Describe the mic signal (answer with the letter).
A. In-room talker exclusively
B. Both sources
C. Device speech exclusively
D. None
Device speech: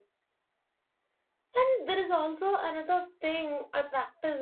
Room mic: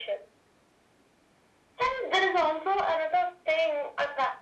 C